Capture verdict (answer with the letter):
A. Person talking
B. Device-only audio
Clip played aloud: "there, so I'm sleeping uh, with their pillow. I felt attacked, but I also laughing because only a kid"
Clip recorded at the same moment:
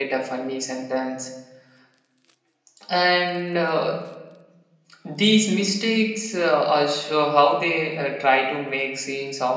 A